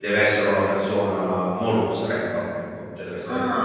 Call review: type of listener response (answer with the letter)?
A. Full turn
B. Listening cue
A